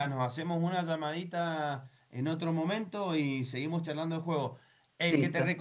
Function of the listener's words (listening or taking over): listening